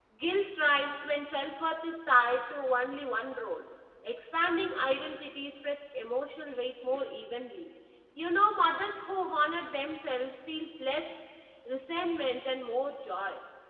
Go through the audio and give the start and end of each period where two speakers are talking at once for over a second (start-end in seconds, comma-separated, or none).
none